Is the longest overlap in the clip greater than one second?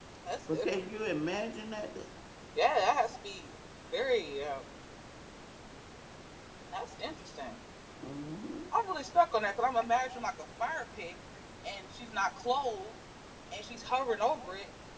No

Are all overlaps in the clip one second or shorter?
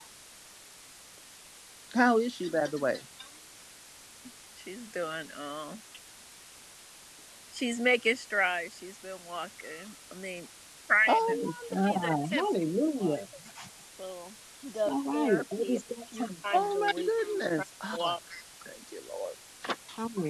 No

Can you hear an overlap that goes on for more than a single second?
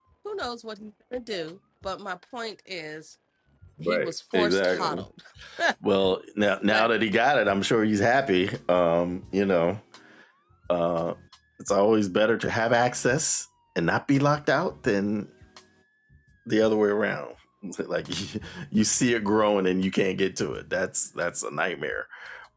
Yes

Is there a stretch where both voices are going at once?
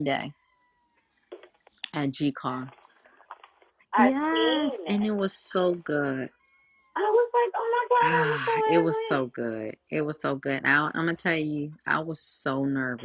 Yes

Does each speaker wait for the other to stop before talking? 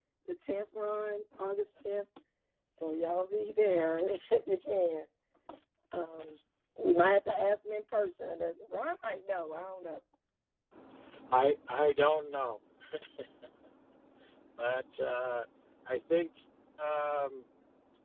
Yes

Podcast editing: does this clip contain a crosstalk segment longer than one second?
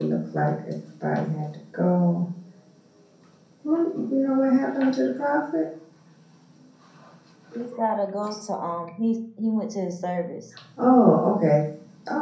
No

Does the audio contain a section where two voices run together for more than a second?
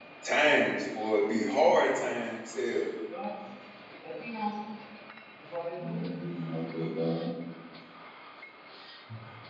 No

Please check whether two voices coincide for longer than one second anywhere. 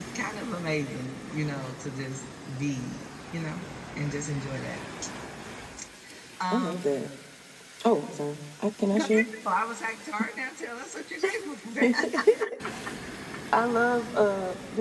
No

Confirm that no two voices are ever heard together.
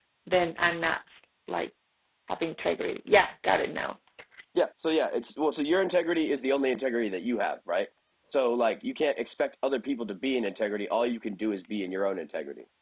Yes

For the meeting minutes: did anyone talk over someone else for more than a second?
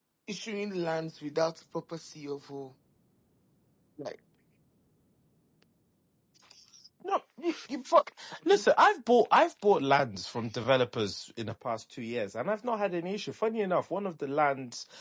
No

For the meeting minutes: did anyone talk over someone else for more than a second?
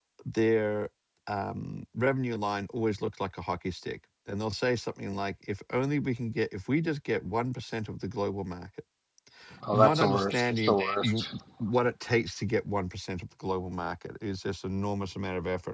Yes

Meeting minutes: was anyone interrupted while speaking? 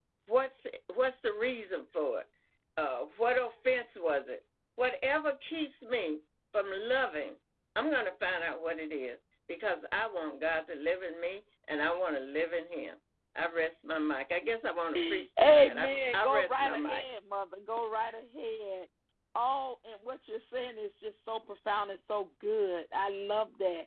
Yes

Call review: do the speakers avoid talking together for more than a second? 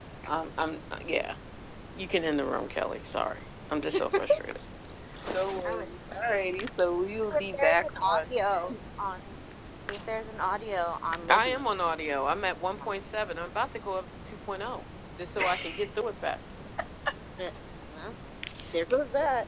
No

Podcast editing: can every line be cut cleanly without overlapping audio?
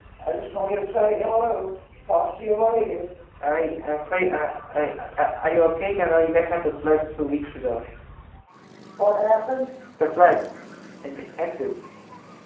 Yes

